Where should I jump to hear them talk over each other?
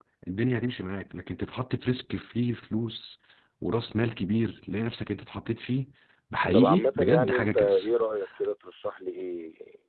6.5 s

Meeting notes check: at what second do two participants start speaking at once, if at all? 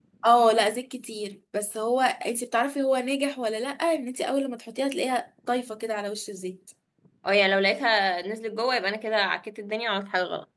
none

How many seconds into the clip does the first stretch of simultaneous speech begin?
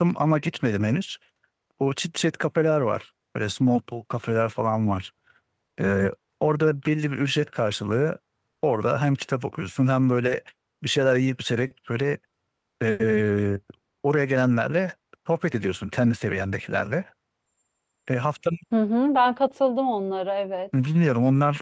none

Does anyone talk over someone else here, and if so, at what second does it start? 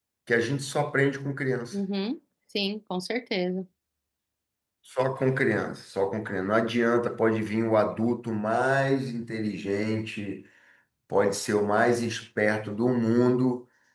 none

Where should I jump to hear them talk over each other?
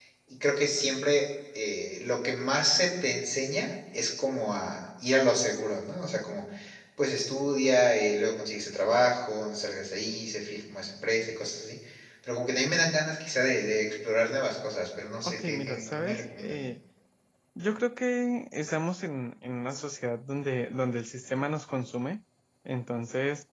15.2 s

